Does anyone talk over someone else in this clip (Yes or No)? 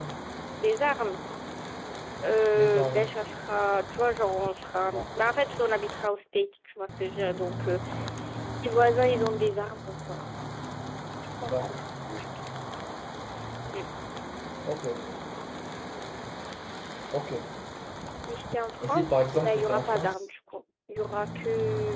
Yes